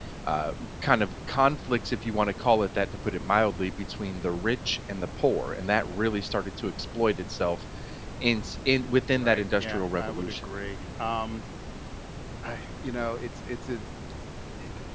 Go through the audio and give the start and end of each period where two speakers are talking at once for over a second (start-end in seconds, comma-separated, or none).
9.2-10.5